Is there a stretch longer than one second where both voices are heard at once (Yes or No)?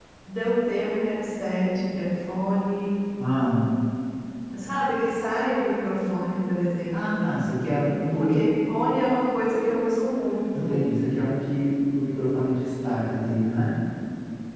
No